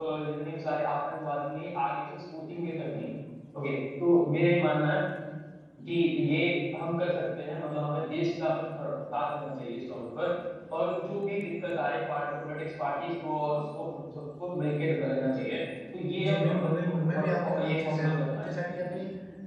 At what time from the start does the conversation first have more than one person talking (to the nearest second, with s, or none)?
16 s